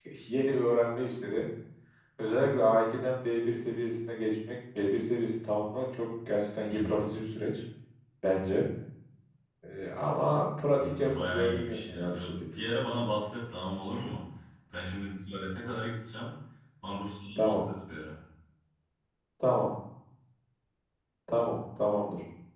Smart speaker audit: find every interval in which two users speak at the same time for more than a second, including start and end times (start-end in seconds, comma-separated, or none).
10.8-12.2